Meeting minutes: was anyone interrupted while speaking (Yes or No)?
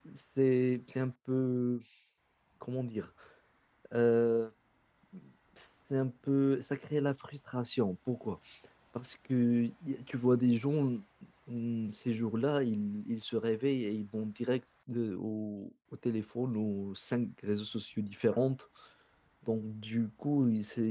No